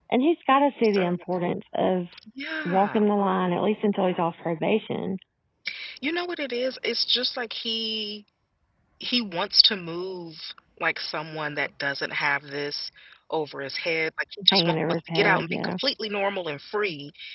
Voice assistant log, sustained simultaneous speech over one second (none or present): present